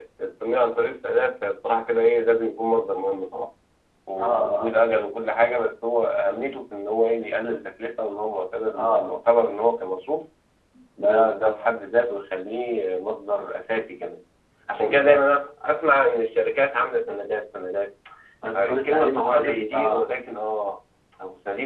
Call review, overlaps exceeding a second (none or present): present